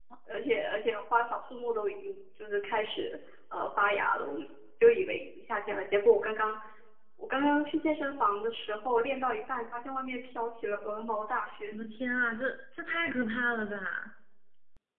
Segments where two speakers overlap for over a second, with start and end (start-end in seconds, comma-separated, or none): none